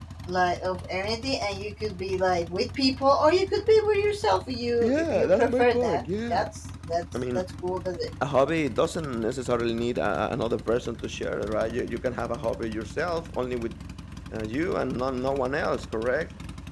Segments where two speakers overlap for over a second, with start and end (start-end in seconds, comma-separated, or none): 4.8-6.5